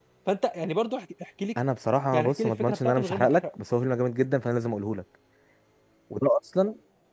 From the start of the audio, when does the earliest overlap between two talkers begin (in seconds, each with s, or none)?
2.1 s